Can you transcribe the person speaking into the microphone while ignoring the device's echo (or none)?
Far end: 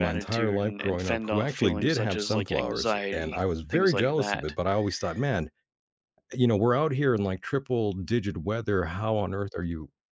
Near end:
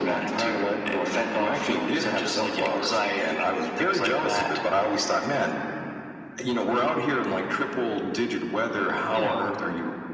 you know,